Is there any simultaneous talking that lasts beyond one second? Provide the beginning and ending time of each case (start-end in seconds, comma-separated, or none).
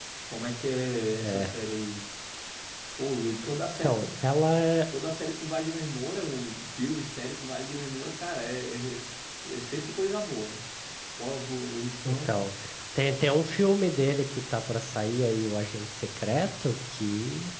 none